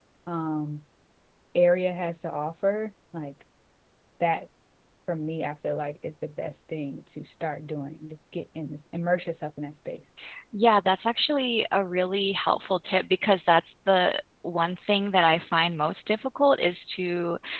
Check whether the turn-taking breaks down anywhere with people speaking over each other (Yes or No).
No